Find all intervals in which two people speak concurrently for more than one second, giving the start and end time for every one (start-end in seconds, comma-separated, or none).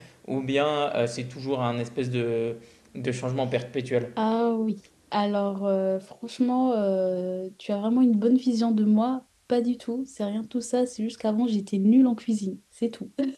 none